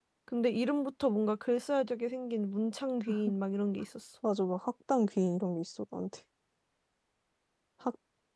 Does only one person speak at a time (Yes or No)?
Yes